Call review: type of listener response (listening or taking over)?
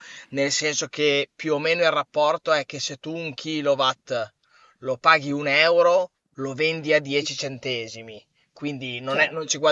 listening